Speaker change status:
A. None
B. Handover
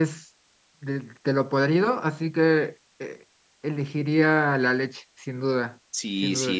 B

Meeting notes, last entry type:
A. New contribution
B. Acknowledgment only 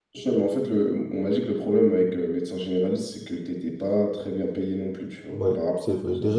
A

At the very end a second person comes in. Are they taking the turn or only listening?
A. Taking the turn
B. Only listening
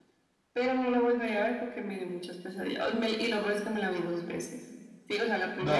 B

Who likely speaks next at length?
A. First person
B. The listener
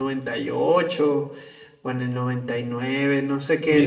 B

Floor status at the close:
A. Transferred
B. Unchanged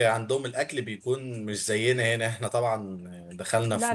B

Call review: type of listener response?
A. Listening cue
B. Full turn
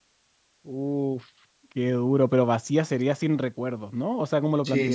B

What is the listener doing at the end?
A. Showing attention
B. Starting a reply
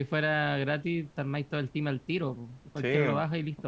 B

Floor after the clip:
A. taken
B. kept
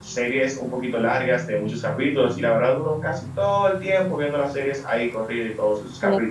A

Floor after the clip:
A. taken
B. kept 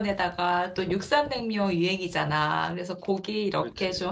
B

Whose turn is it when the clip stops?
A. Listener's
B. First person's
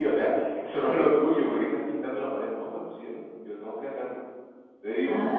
A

